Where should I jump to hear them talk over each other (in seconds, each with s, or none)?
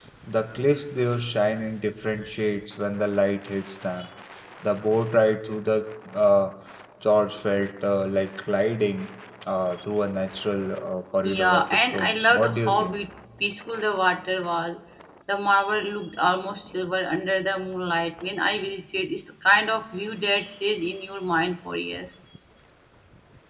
11.2 s